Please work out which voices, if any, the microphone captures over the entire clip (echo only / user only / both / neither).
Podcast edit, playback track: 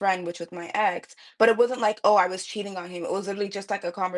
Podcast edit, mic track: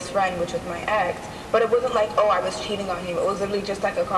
echo only